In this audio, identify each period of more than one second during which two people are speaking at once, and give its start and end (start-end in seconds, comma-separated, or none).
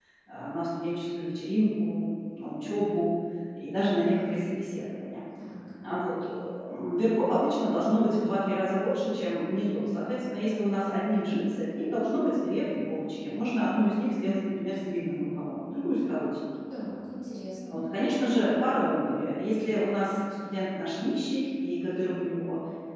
none